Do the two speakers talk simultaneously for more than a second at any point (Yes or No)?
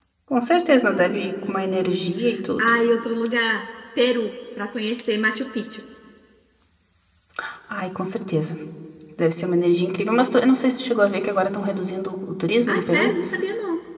No